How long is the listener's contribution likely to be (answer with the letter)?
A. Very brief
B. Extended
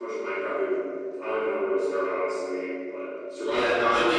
B